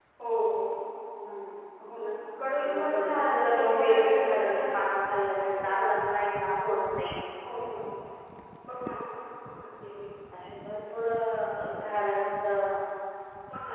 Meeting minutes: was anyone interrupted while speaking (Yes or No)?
Yes